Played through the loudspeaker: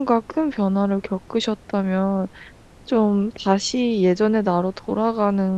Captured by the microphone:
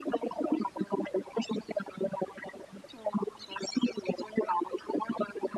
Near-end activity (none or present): none